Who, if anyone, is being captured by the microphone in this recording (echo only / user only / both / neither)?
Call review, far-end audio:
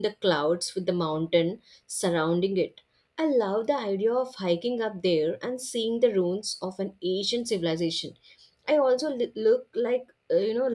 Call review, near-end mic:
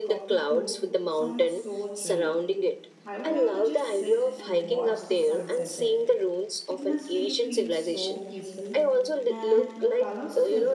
both